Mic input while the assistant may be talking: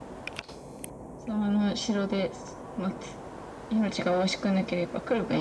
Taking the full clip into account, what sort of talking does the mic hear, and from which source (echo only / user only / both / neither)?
echo only